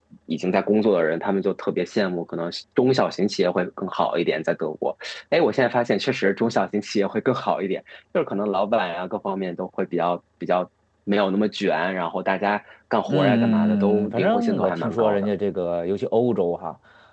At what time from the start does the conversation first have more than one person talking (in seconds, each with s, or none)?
13.1 s